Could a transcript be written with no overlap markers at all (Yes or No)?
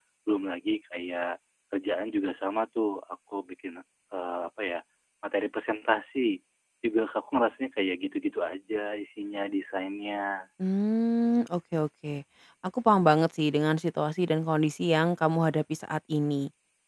Yes